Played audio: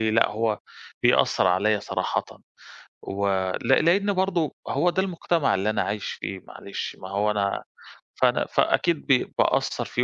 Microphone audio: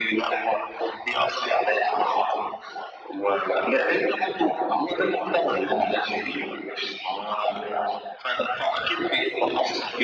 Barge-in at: none

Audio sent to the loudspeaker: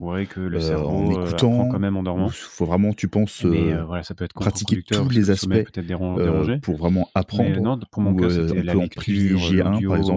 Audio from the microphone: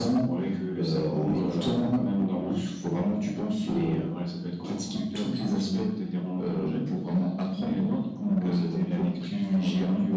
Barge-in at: none

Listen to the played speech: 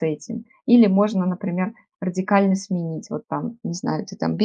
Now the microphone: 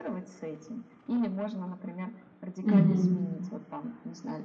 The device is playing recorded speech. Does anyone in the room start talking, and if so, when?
2.6 s

